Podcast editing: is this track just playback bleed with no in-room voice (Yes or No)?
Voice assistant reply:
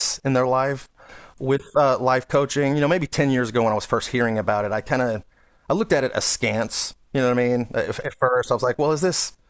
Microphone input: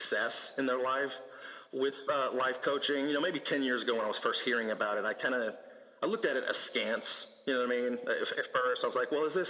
Yes